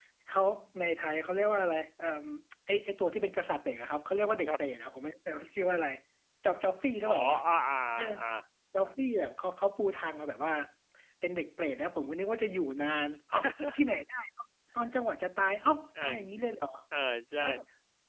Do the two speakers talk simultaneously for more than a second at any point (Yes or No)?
No